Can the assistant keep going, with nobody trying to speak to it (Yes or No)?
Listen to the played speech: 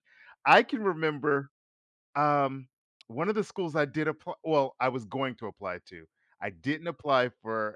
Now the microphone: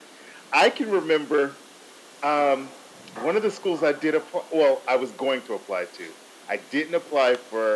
Yes